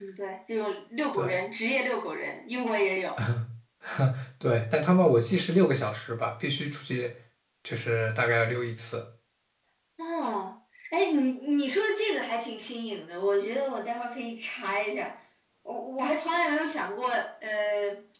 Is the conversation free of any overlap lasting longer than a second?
Yes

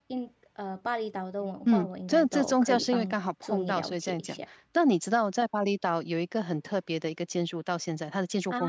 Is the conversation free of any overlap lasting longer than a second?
No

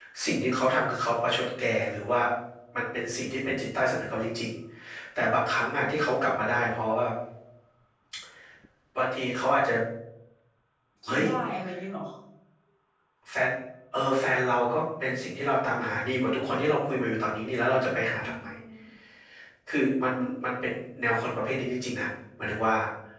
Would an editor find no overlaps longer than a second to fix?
Yes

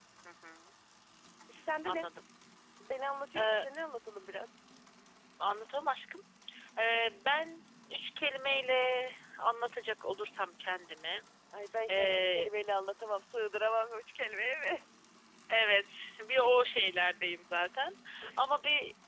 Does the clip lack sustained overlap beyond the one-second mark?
Yes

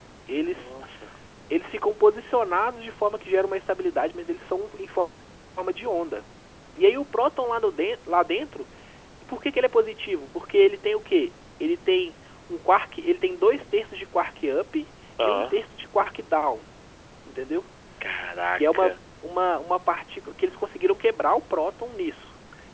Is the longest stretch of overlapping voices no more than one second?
Yes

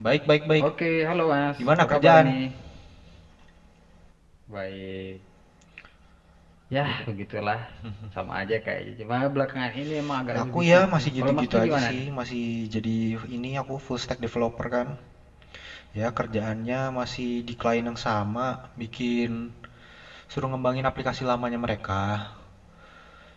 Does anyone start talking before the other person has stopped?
Yes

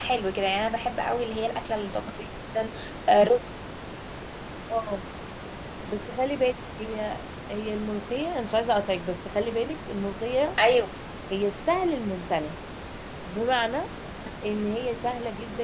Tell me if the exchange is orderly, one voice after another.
Yes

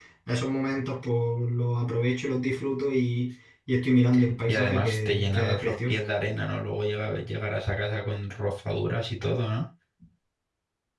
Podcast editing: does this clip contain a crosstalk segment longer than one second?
Yes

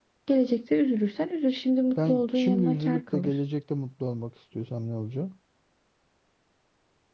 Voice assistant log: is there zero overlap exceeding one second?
No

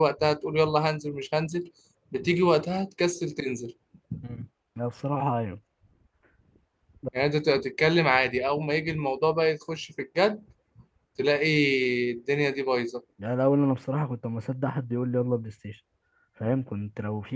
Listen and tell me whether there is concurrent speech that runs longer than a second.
No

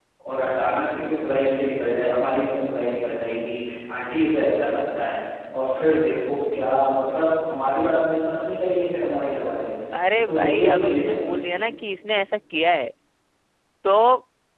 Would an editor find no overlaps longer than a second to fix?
No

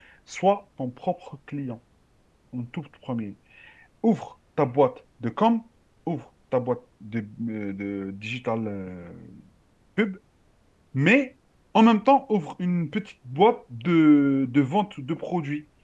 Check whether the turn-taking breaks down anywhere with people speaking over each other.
No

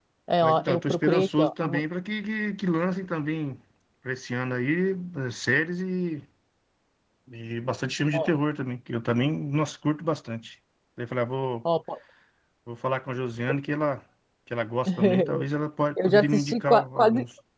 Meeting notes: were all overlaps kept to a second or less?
No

